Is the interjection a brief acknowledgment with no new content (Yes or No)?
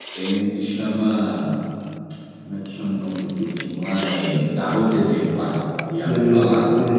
No